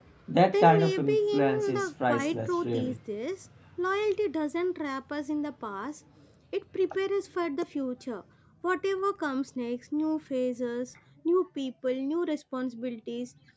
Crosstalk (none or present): present